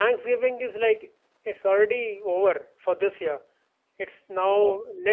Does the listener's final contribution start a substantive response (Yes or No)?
No